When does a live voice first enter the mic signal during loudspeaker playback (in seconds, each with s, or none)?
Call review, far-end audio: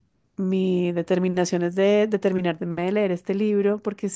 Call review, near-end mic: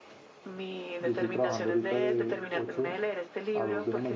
1.0 s